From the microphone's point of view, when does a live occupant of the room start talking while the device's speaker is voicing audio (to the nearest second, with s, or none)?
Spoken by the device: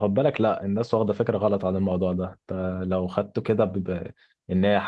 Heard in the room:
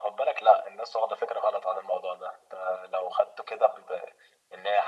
none